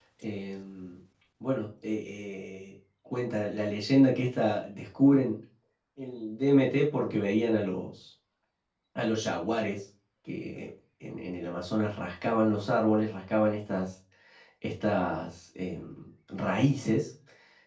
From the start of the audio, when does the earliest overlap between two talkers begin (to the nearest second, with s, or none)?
none